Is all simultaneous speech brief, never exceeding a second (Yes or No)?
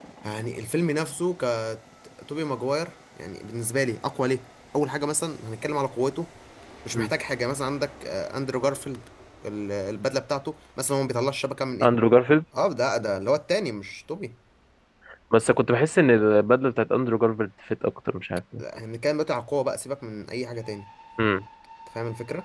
Yes